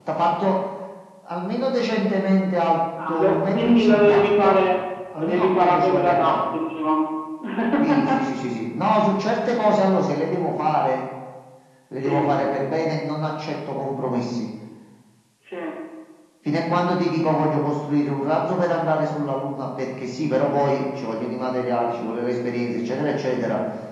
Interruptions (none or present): present